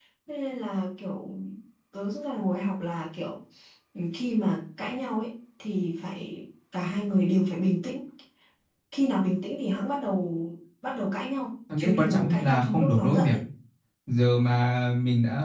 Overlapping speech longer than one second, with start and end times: 11.8-13.4

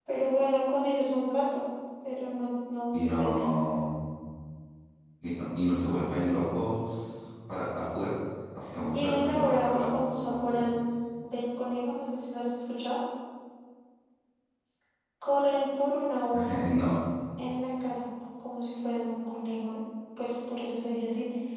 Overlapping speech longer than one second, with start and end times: 8.9-10.7

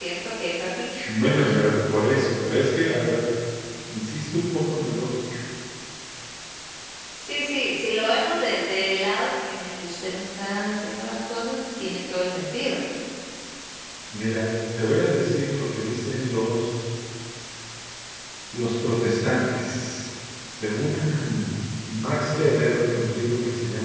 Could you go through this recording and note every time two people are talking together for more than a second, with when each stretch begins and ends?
none

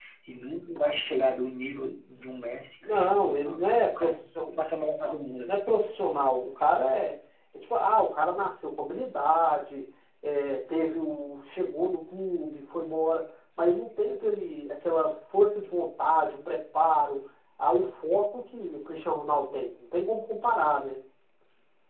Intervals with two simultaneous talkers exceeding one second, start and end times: 2.8-4.5

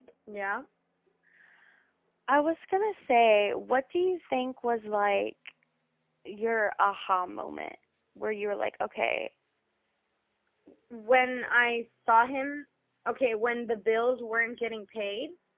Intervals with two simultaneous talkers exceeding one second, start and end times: none

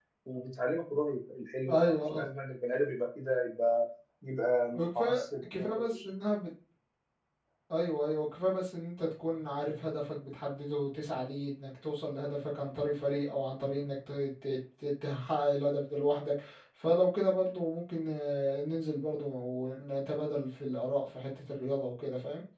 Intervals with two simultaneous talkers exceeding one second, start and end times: 4.7-6.0

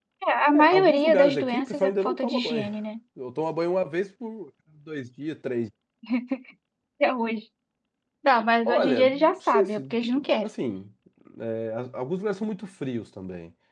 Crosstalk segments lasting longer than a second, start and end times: 0.5-2.6, 8.6-10.0

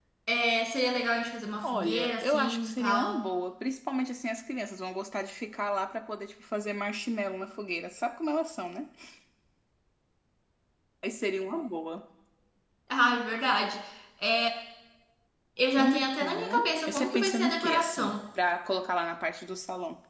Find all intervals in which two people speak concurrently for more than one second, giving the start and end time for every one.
1.6-3.2, 15.8-18.1

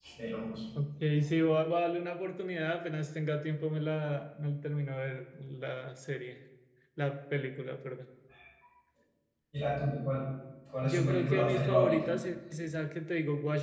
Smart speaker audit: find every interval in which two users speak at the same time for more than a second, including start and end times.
10.8-12.1

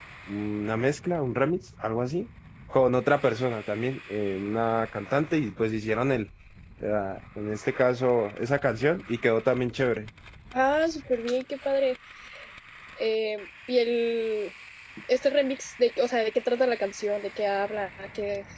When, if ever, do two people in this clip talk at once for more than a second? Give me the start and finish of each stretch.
none

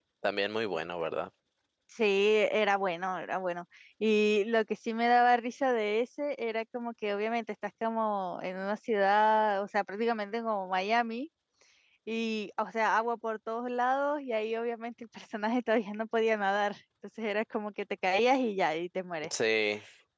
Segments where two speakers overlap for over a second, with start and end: none

